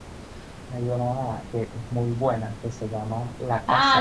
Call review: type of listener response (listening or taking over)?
taking over